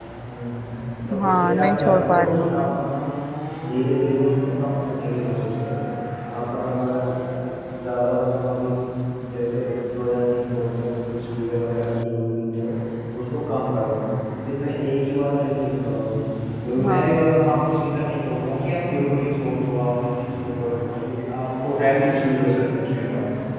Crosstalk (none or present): present